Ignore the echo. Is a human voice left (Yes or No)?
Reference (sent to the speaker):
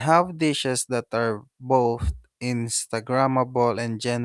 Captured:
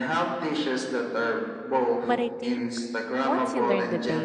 Yes